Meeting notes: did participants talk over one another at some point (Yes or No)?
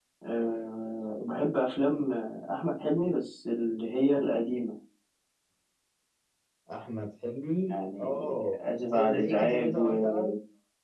Yes